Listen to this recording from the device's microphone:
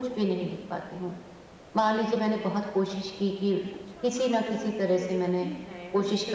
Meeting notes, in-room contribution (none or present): present